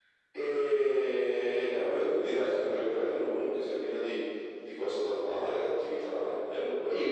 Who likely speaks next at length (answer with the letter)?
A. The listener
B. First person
A